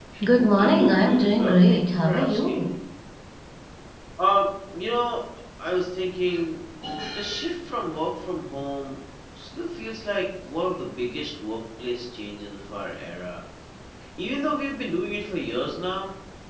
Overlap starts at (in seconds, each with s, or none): 0.6 s